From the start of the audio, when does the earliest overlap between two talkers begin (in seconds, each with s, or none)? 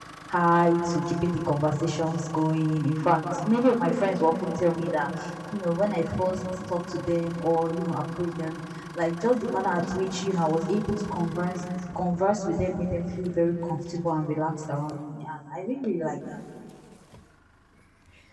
none